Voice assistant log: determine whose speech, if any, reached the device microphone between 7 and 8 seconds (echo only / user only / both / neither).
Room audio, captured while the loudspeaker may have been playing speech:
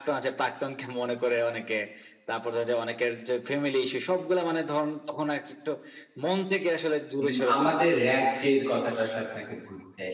both